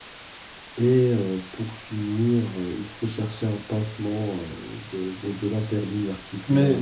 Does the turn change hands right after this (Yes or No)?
Yes